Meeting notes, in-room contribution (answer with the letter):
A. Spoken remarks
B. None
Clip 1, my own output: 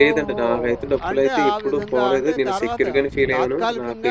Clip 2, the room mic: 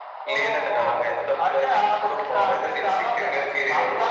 B